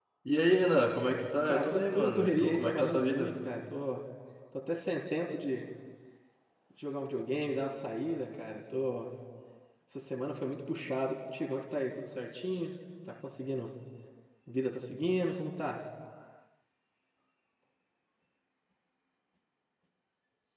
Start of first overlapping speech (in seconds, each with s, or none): 1.5 s